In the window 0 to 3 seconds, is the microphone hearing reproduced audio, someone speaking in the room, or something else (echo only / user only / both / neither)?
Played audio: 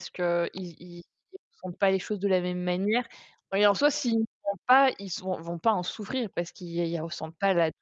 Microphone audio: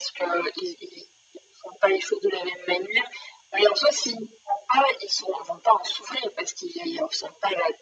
echo only